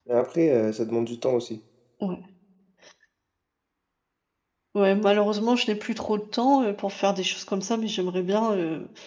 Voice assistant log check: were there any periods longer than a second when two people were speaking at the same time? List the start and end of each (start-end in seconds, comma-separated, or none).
none